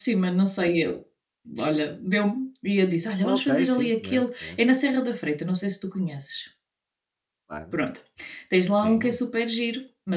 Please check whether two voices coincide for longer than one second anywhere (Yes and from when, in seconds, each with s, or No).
Yes, from 3.2 s